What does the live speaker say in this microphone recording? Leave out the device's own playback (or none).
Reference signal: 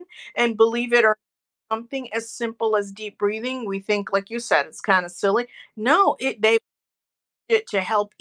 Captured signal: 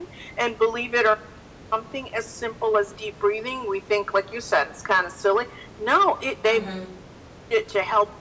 Mhm.